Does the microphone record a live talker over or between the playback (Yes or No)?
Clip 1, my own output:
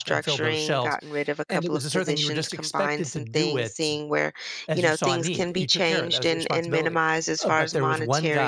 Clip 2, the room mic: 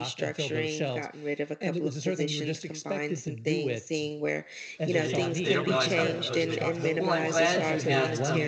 Yes